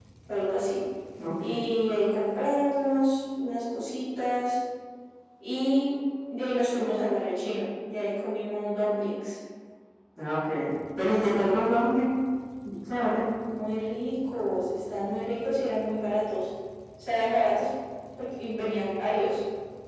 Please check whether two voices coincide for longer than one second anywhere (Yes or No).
No